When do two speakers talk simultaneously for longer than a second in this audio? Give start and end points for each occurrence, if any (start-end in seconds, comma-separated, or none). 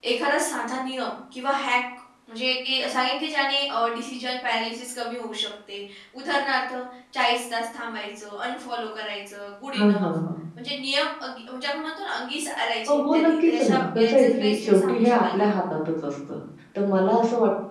12.9-15.5